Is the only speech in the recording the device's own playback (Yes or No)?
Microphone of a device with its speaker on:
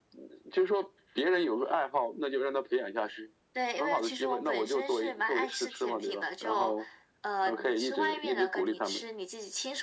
Yes